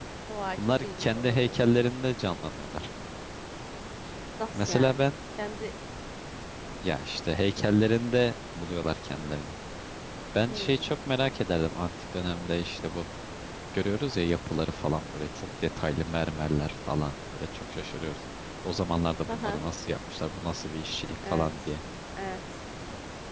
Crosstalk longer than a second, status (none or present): present